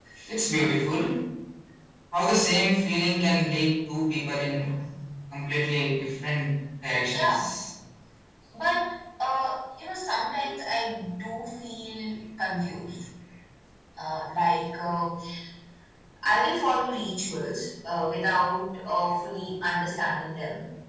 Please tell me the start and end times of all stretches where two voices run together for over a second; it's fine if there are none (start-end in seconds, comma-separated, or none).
none